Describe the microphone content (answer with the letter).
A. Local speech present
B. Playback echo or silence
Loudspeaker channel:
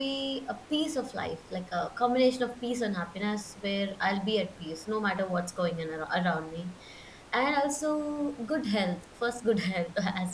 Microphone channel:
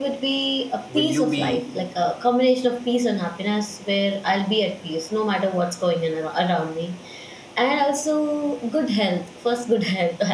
A